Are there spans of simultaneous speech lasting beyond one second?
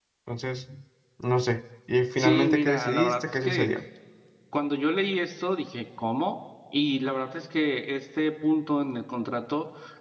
Yes, from 2.2 s

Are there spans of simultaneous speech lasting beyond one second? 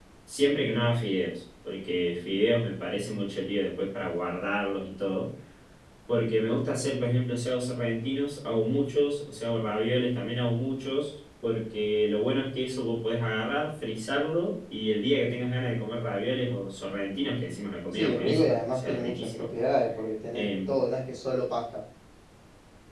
Yes, from 17.9 s

